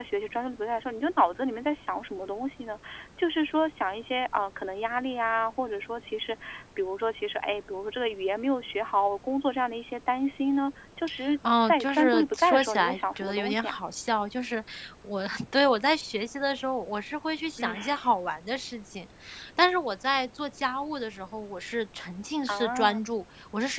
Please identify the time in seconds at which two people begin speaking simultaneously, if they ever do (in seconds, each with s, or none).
11.6 s